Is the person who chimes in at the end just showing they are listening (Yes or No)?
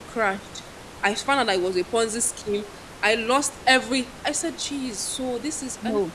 Yes